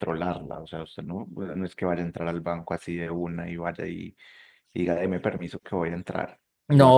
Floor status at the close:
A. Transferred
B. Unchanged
A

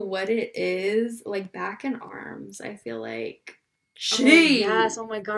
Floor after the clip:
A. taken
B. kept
A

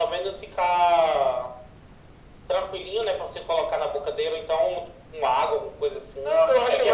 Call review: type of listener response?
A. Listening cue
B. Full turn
B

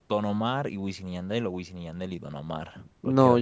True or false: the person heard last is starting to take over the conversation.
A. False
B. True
B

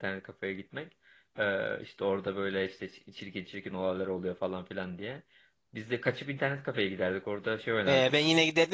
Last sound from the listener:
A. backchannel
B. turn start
B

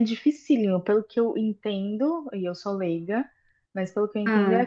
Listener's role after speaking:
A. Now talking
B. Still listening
B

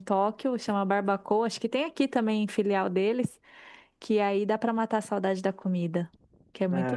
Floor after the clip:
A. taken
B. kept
A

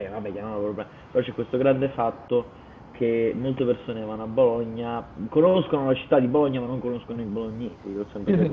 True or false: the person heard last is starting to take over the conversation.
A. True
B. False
A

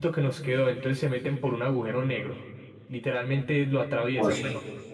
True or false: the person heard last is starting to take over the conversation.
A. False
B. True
A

